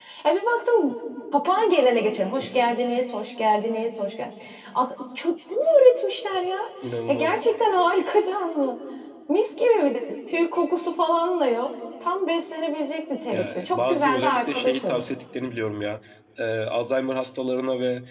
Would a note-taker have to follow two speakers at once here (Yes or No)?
Yes